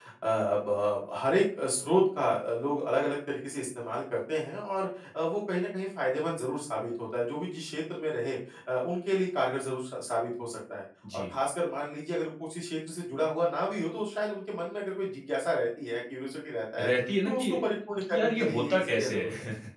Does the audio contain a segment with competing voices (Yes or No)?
Yes